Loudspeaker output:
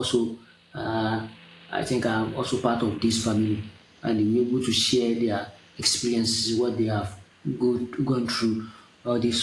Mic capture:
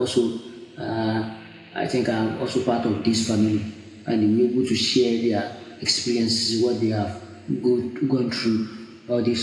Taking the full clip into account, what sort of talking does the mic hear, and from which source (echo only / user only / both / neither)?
echo only